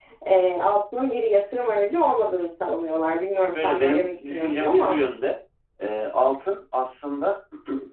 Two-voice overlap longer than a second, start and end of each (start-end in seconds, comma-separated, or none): 3.5-5.0